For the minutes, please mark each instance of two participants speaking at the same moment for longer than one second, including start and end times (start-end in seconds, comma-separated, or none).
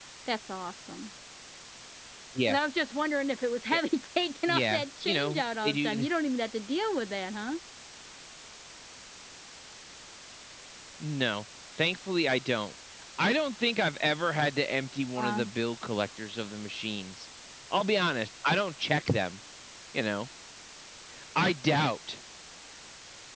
4.5-6.1